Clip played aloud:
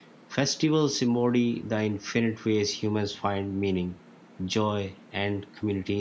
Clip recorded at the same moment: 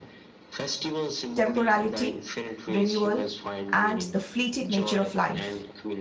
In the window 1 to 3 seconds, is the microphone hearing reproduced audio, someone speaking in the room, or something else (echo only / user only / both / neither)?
both